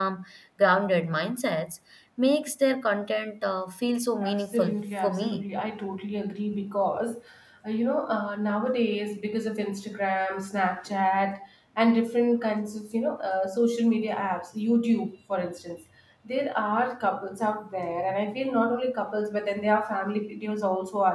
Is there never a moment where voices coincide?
No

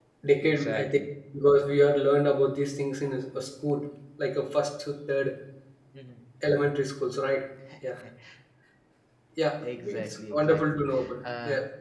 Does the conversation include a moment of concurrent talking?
Yes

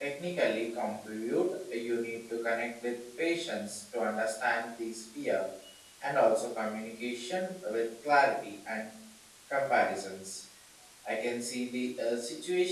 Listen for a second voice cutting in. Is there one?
No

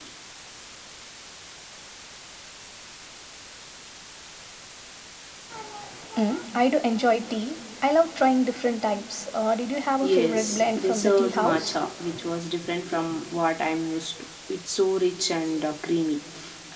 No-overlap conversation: No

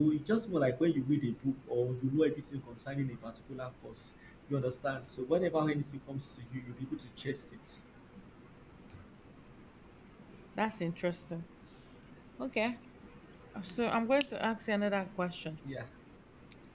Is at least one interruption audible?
No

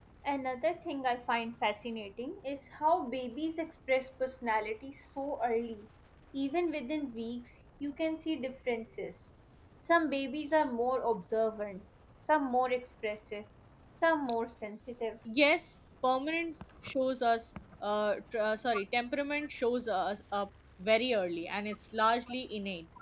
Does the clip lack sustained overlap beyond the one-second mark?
Yes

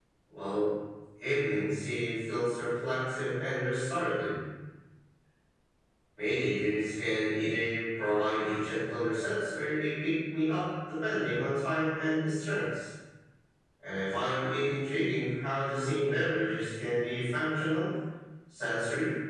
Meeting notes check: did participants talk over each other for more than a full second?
No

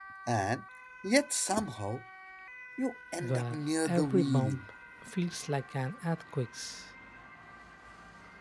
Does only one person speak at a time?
No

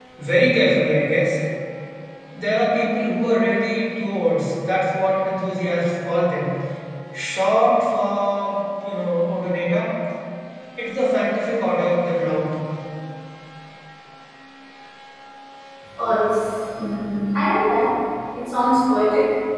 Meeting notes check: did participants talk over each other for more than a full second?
No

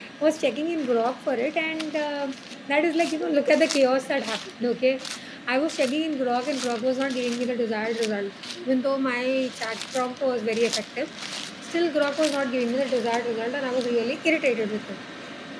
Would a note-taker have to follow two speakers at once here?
No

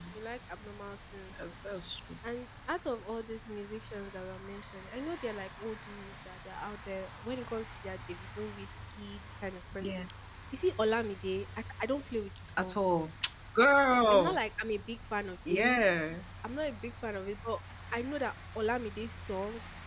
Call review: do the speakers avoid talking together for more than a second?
Yes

